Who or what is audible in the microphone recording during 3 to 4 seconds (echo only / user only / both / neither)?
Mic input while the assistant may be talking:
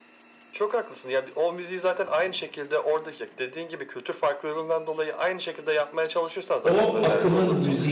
echo only